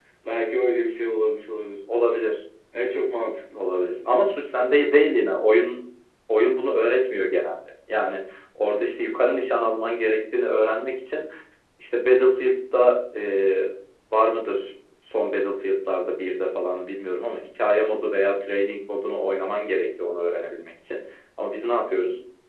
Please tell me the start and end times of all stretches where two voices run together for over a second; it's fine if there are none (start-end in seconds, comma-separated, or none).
none